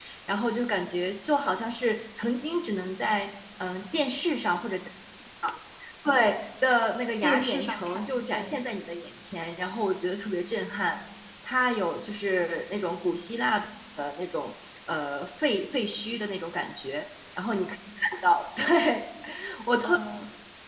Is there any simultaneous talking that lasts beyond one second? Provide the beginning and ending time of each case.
7.2-8.6

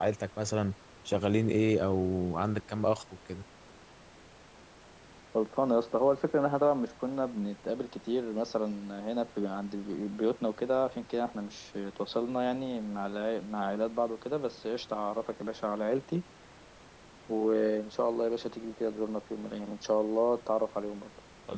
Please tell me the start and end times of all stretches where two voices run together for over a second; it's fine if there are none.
none

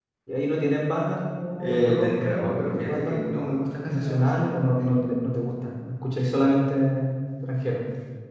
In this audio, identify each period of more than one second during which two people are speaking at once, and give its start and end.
1.6-4.6

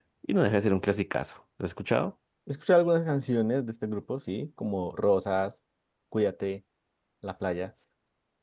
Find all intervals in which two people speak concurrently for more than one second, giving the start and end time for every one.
none

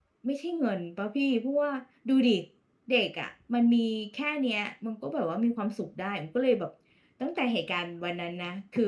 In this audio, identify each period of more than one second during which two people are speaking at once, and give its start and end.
none

